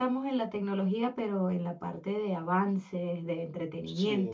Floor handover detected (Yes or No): No